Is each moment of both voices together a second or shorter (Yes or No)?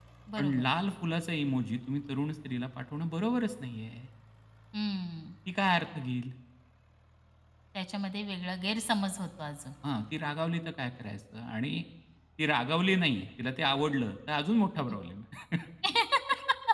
Yes